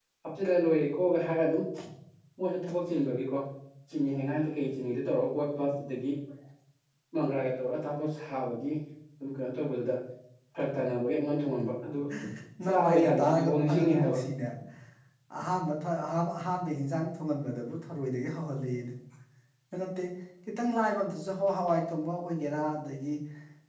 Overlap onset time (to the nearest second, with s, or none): 13 s